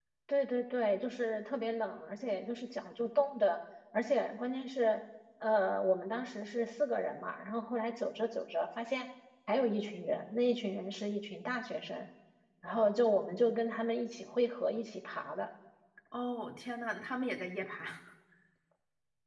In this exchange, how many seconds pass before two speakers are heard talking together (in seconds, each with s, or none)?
none